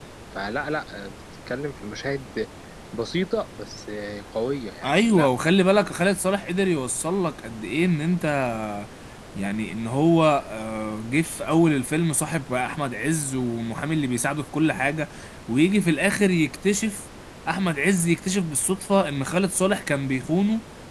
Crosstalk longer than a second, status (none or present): none